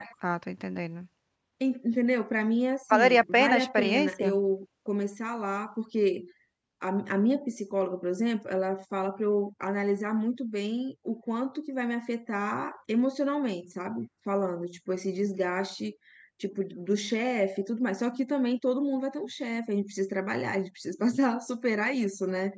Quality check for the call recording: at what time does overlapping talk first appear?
2.9 s

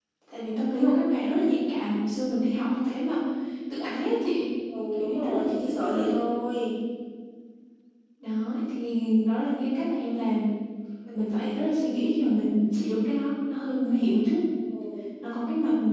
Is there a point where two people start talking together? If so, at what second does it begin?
4.9 s

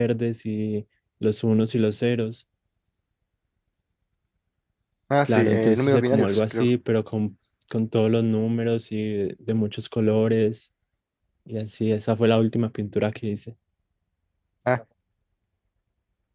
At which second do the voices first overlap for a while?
5.2 s

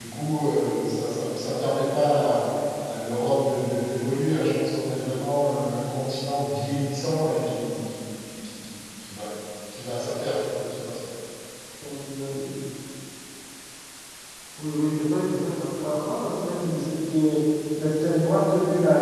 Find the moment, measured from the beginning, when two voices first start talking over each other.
none

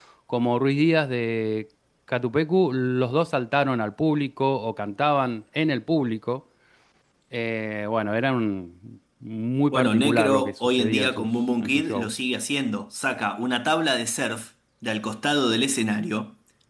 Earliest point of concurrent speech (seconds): 9.7 s

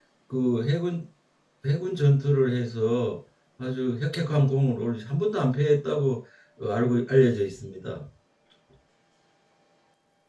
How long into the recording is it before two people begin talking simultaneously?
none

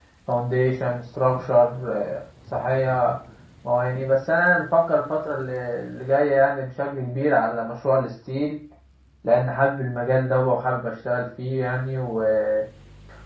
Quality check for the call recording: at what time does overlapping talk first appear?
none

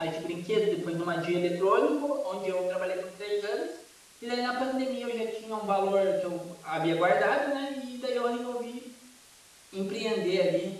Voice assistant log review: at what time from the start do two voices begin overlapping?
none

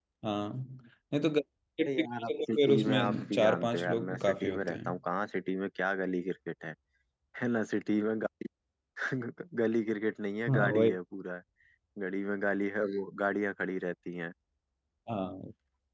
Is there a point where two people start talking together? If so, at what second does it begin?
1.9 s

